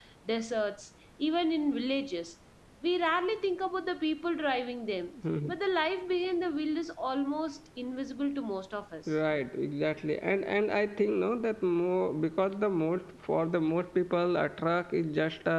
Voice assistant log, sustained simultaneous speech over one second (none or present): none